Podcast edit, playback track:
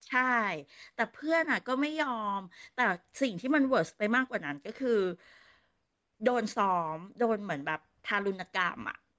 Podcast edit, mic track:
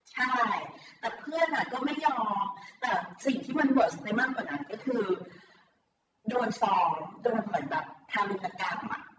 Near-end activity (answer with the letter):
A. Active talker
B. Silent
B